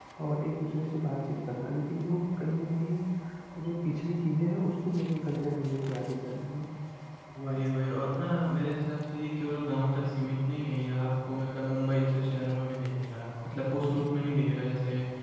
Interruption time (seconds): none

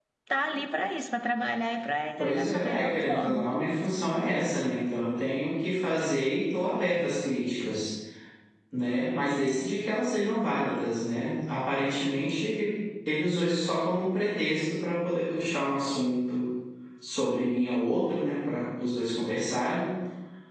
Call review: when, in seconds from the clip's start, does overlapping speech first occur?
2.2 s

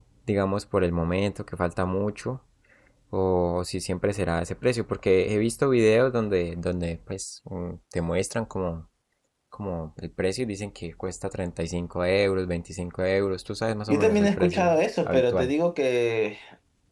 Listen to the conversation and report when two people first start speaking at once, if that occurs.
13.9 s

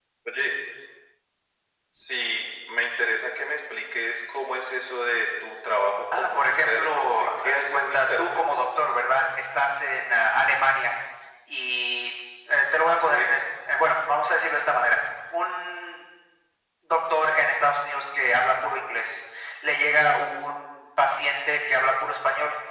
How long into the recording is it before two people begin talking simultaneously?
6.1 s

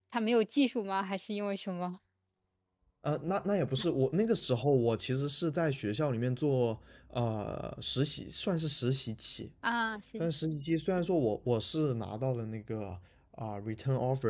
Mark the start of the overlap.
none

